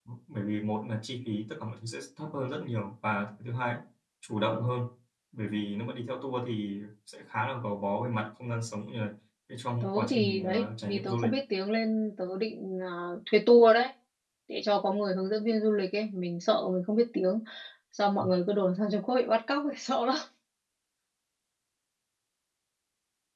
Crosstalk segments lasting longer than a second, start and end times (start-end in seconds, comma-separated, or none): 9.8-11.3